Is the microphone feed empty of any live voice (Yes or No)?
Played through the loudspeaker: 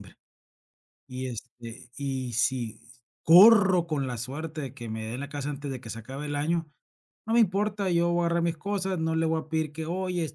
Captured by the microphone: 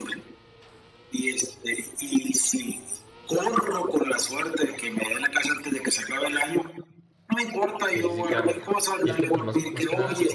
No